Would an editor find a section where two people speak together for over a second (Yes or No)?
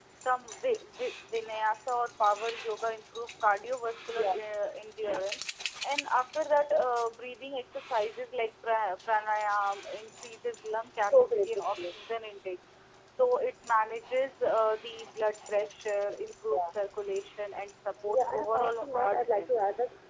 Yes